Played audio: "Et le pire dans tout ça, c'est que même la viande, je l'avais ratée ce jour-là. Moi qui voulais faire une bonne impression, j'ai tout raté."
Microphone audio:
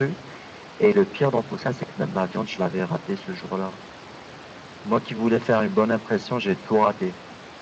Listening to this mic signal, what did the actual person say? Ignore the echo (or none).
none